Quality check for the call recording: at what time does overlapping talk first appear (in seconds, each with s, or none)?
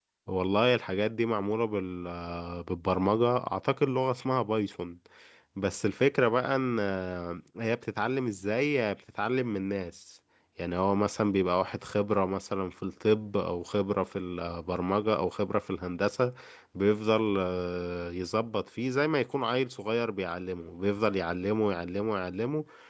none